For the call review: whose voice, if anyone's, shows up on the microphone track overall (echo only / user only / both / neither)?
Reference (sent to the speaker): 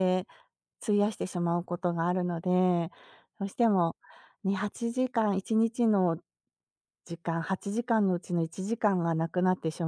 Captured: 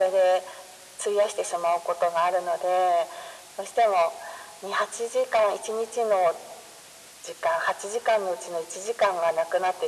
echo only